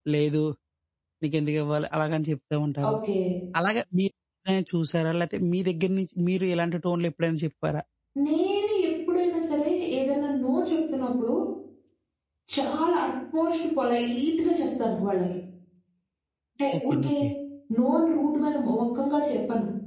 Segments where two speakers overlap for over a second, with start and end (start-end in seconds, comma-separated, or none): none